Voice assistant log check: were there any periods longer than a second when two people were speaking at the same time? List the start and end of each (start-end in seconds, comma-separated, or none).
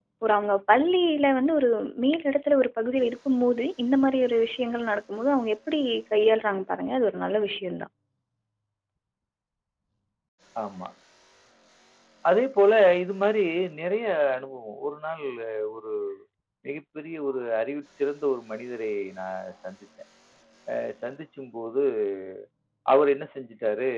none